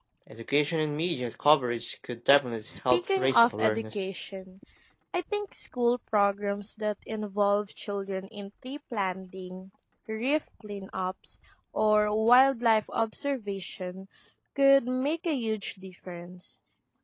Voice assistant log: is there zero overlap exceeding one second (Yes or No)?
No